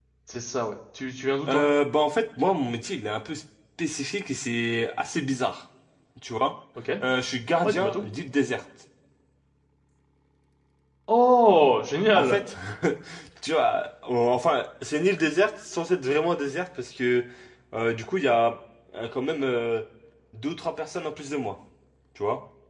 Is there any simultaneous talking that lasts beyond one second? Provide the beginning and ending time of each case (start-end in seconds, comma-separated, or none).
none